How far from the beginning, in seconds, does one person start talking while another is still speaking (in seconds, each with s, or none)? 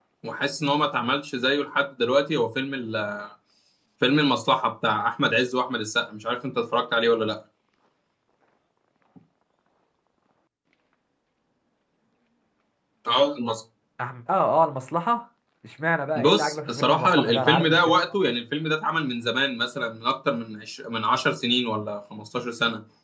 16.2 s